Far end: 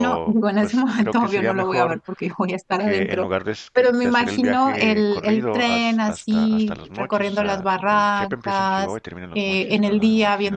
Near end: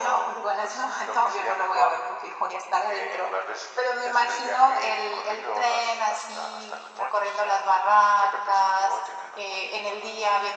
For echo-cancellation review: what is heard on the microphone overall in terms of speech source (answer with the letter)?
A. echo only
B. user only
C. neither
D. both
A